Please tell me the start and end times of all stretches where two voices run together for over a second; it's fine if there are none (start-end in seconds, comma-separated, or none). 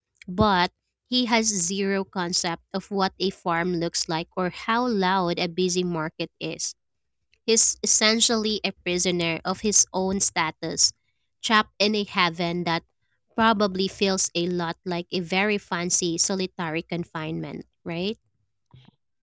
none